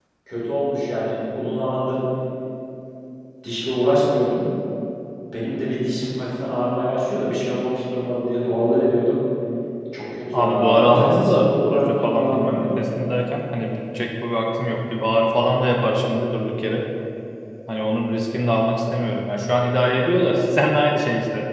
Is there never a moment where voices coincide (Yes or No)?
No